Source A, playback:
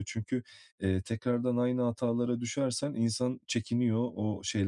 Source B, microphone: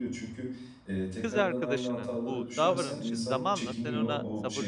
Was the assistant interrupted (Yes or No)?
Yes